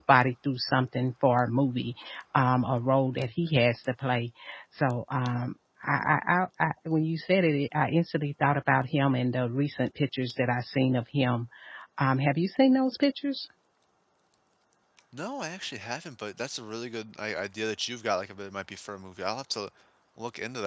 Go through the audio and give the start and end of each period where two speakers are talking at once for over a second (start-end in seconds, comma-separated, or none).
none